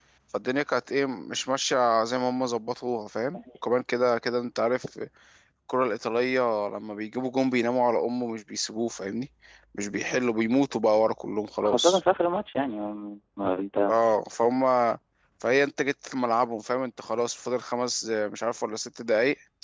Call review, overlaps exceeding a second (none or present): none